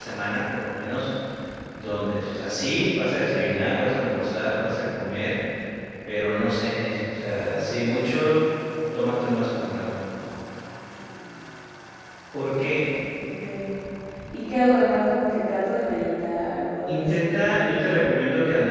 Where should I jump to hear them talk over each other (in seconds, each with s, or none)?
16.9 s